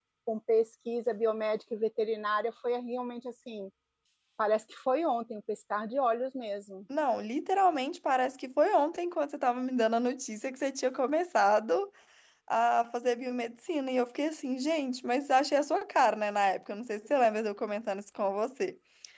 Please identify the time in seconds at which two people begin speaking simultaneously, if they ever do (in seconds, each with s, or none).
none